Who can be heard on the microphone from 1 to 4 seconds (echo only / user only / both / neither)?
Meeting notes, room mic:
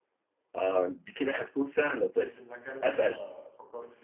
both